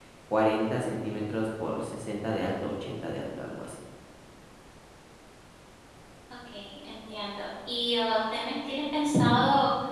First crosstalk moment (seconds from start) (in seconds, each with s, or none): none